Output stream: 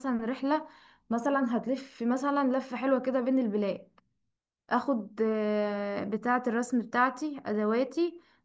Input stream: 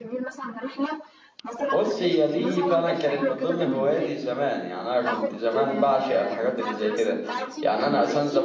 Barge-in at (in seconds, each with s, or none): 1.7 s